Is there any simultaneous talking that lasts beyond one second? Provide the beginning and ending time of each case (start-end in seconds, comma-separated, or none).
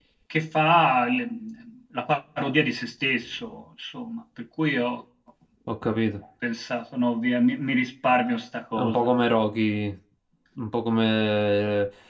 none